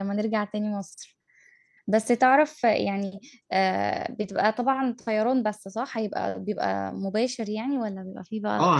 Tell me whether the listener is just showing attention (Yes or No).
No